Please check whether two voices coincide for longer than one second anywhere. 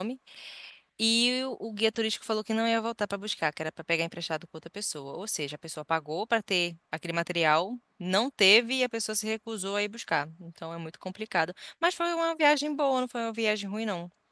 No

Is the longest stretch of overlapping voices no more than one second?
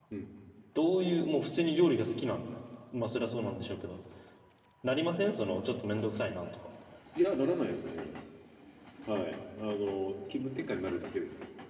Yes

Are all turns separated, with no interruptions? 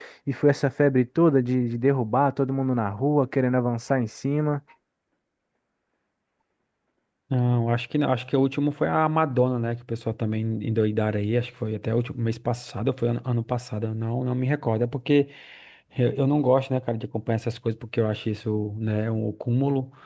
Yes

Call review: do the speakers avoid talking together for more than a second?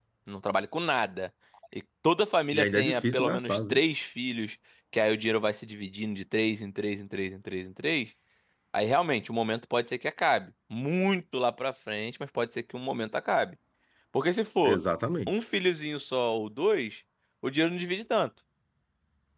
No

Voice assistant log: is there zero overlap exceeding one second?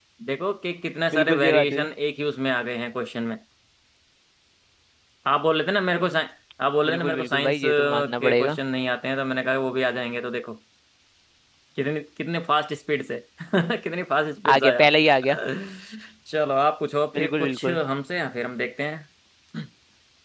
No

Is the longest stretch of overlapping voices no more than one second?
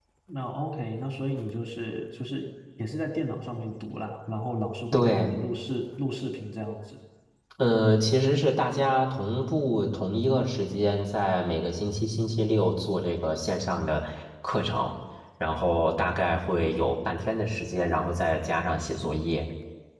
Yes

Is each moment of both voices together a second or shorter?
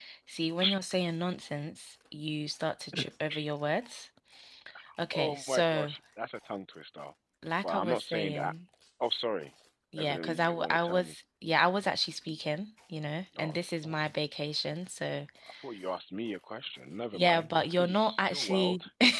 No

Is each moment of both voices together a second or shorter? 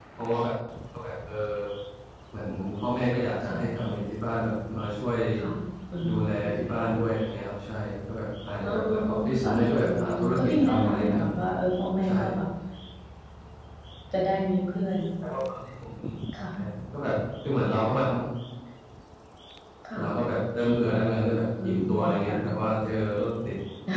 No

